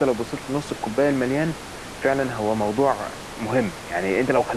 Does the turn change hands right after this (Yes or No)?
No